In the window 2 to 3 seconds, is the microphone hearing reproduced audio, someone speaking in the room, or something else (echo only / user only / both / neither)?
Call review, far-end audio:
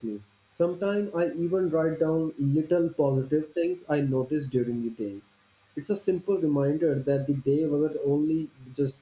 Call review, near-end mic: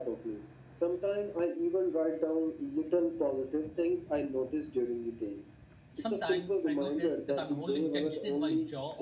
echo only